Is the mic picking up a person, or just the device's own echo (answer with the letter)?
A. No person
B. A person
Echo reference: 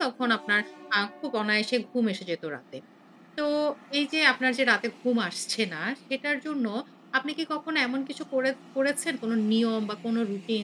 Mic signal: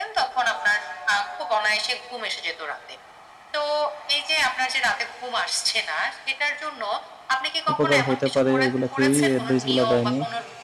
B